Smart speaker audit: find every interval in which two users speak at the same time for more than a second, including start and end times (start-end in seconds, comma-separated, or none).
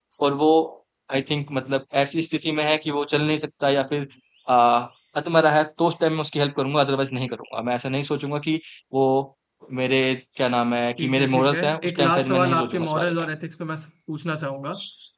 11.0-13.1